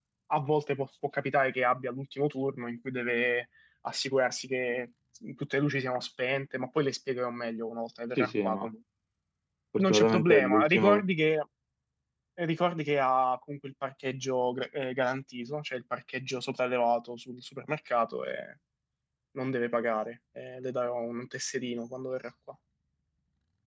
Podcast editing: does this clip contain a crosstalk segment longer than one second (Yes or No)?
Yes